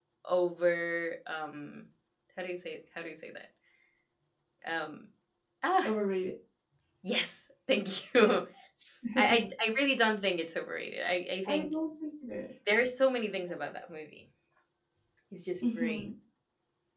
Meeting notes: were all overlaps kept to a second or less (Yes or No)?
Yes